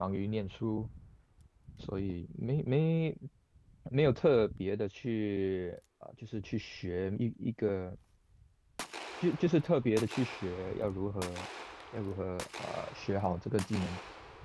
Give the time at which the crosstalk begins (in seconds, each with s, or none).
none